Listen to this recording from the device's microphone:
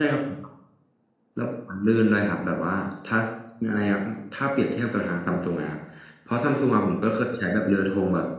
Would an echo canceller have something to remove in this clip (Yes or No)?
No